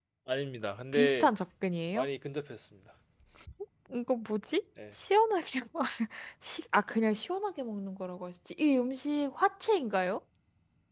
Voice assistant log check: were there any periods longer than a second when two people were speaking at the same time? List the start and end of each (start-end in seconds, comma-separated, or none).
none